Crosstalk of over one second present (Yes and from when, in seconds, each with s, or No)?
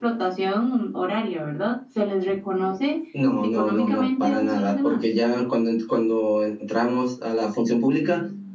Yes, from 3.4 s